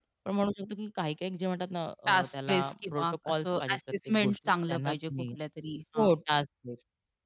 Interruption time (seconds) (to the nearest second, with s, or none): 2 s